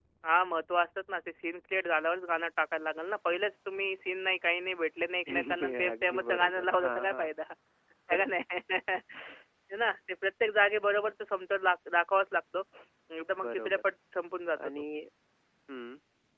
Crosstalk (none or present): present